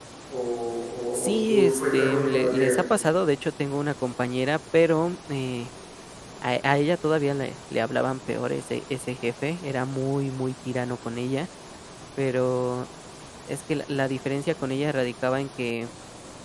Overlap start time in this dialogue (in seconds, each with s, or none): 1.1 s